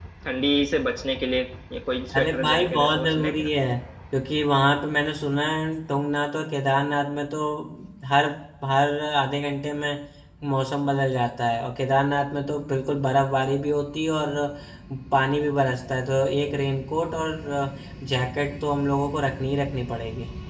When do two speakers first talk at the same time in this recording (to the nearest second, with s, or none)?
2 s